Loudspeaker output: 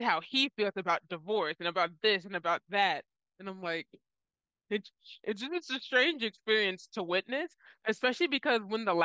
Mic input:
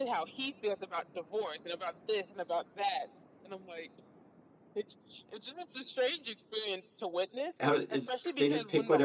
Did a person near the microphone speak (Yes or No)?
Yes